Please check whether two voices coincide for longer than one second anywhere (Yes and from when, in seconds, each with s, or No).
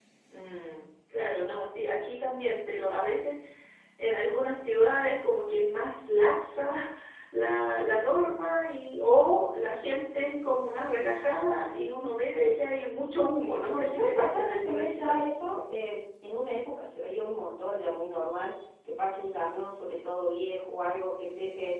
Yes, from 13.5 s